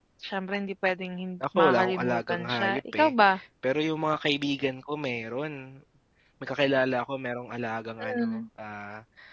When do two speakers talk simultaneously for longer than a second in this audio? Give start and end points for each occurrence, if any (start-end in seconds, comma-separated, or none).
1.6-3.1